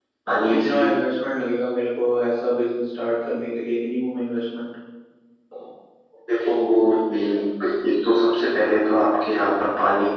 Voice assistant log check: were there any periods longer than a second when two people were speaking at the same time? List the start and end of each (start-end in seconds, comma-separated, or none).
none